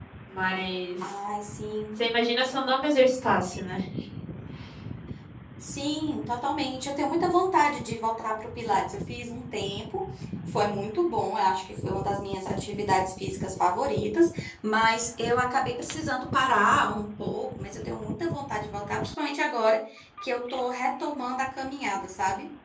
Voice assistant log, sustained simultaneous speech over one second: none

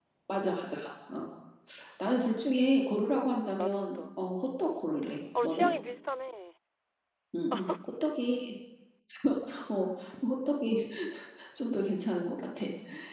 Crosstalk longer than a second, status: none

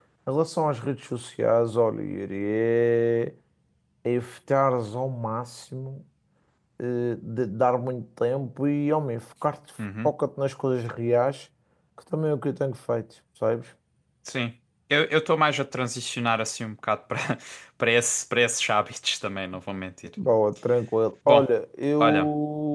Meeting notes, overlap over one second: none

